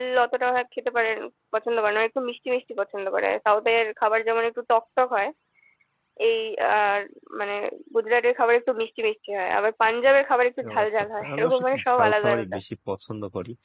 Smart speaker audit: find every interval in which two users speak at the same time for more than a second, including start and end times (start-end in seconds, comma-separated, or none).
10.7-12.6